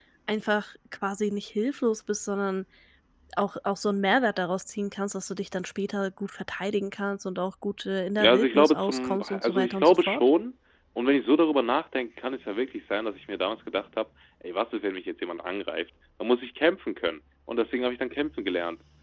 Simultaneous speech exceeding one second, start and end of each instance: 8.2-10.2

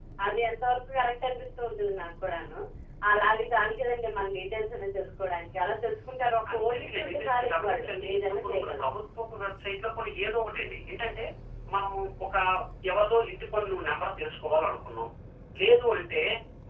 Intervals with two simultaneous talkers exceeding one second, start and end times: 6.5-8.8

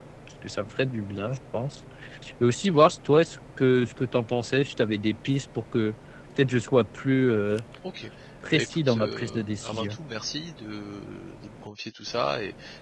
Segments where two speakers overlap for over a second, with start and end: 8.5-9.9

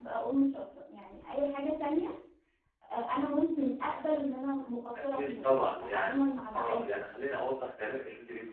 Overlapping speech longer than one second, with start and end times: 5.1-6.8

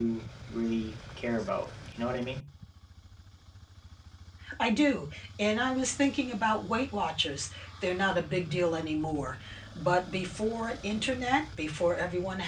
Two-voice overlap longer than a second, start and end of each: none

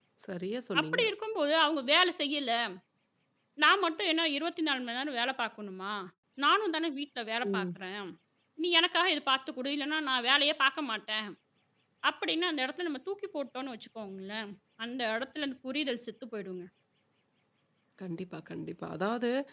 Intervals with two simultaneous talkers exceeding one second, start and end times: none

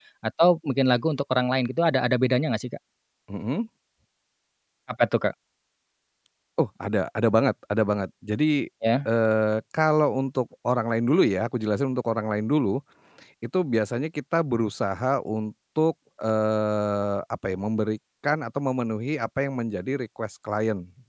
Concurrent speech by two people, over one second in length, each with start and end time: none

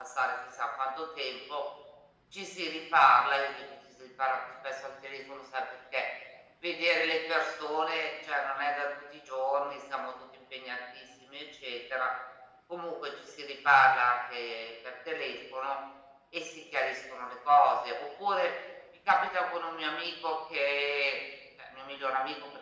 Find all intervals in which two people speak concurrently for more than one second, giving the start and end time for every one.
none

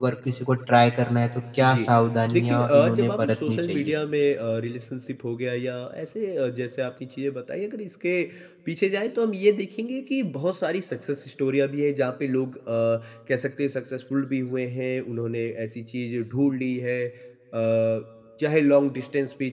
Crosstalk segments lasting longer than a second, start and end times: 2.3-3.9

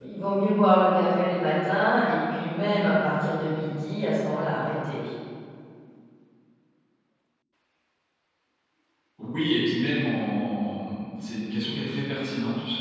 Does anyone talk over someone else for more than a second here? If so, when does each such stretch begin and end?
none

